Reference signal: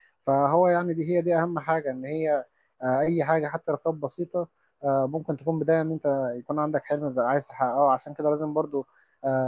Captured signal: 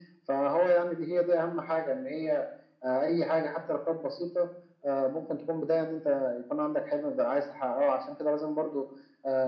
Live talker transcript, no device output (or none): none